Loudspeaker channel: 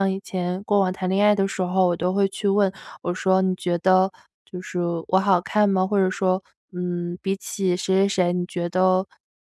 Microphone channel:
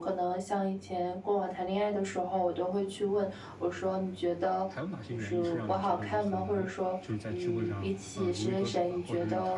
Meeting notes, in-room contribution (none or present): present